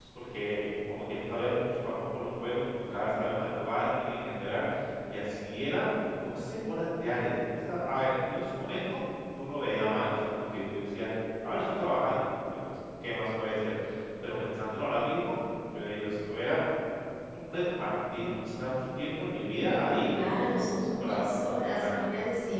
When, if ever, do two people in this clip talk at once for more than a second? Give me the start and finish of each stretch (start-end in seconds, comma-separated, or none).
19.5-21.9